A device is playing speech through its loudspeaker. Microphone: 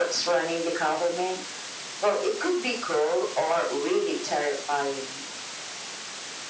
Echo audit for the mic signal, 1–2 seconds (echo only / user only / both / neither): echo only